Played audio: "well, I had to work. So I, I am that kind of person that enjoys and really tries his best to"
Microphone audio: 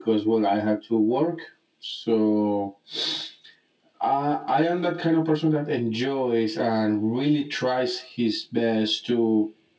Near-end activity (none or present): none